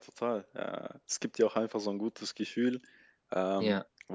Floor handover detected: No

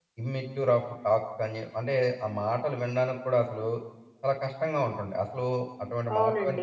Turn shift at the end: Yes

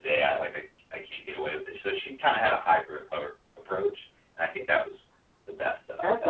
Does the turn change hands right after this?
Yes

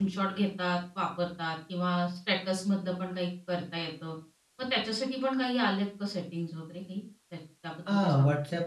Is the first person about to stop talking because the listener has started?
Yes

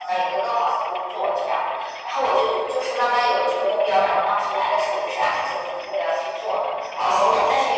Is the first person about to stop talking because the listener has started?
Yes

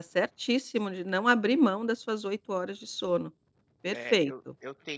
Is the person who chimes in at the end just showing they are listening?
No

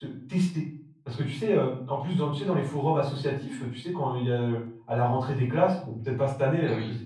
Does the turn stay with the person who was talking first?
Yes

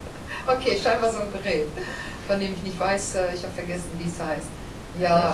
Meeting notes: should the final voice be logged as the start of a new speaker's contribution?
No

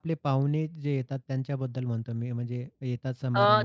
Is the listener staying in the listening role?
No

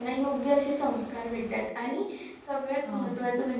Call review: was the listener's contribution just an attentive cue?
Yes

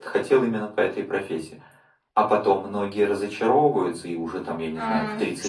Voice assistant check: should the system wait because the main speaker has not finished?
No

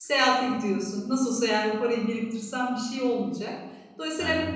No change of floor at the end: Yes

